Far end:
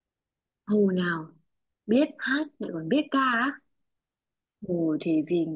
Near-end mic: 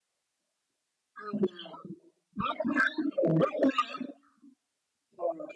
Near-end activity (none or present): none